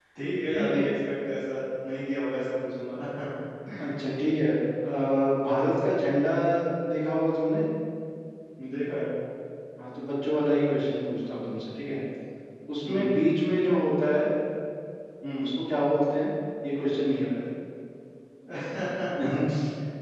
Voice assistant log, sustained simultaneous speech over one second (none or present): none